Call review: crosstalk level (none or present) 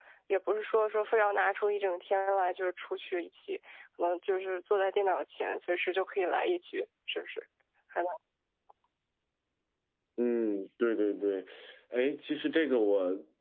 none